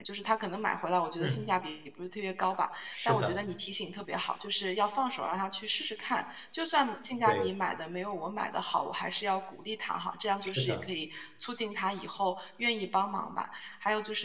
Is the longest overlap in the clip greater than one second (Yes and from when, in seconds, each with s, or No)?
No